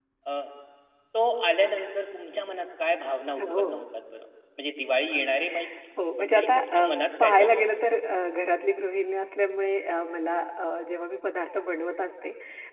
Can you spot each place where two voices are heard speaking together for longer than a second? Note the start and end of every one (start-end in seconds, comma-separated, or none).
6.2-8.0